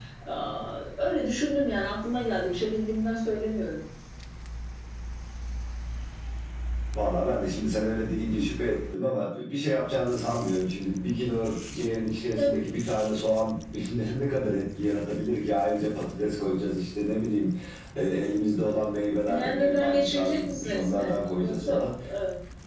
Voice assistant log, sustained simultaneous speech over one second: present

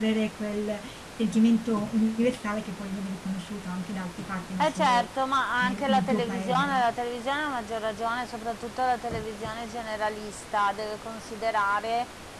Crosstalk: present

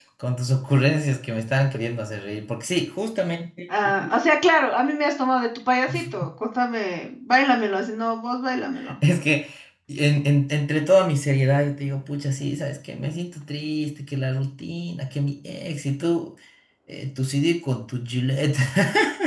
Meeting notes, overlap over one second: none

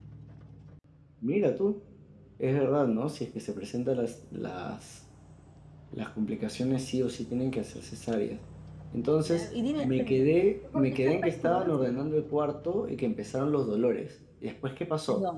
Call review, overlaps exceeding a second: present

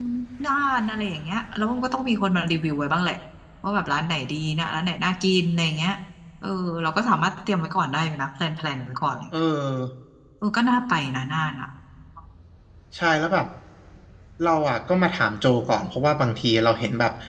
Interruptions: none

